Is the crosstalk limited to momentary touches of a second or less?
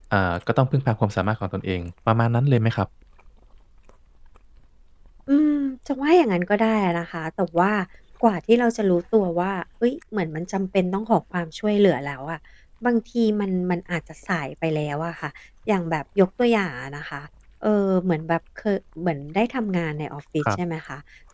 Yes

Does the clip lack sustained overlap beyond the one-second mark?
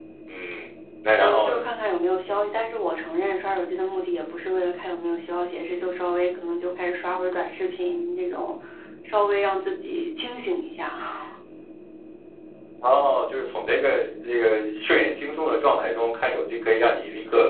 Yes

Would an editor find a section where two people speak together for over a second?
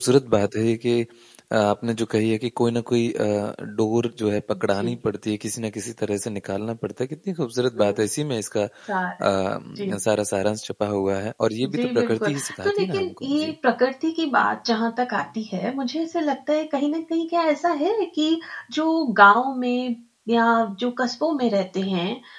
Yes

